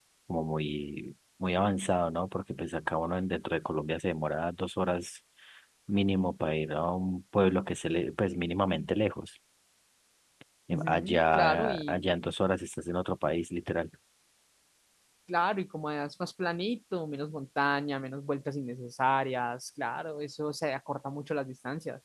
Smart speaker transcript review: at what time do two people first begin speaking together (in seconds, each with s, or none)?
10.7 s